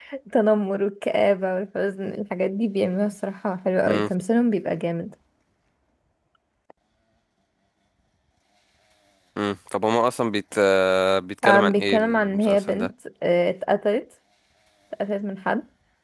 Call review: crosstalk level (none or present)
present